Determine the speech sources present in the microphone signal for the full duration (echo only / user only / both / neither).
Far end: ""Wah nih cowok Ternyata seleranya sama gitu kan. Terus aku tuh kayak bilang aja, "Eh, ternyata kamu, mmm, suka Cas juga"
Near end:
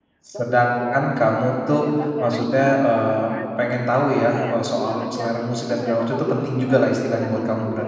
both